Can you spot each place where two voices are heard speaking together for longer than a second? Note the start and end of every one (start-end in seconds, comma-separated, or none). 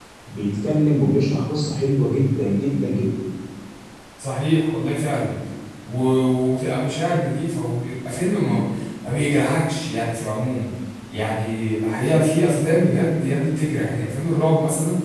none